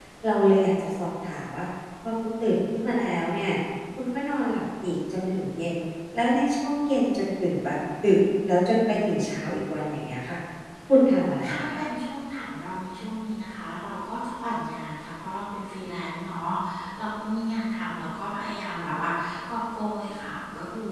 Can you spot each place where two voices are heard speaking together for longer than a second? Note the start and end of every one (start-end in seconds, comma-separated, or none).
none